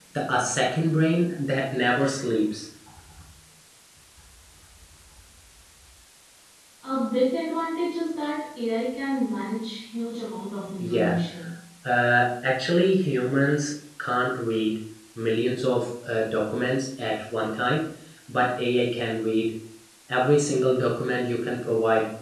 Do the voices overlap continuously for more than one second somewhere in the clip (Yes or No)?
No